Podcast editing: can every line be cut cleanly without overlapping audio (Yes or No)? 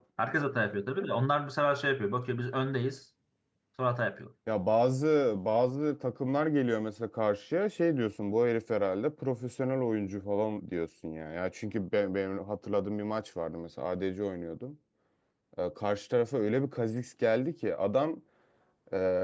Yes